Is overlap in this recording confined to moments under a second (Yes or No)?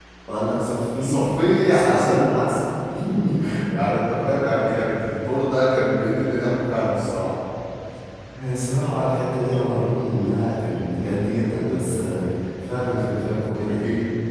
Yes